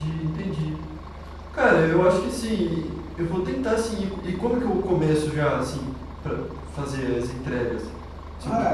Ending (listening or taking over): taking over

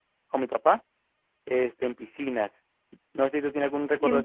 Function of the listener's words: listening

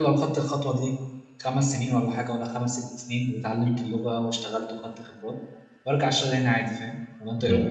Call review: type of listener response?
taking over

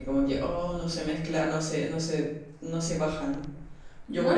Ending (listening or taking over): listening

